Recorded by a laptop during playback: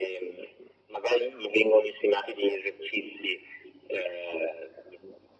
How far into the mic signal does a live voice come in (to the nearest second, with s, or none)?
none